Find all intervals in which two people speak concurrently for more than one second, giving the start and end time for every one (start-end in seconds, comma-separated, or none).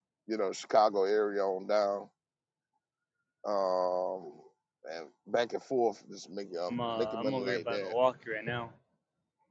6.7-7.9